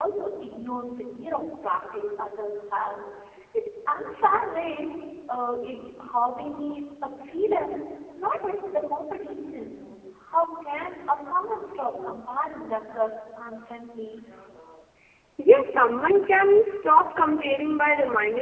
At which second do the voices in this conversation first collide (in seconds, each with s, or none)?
none